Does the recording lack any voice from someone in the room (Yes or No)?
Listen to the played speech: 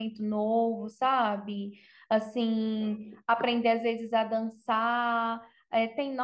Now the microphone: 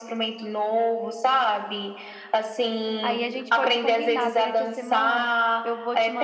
No